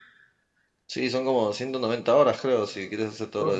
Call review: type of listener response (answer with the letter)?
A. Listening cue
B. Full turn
B